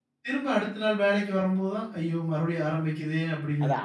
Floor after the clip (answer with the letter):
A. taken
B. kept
A